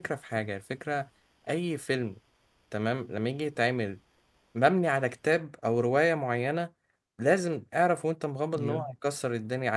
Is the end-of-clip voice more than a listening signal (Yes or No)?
No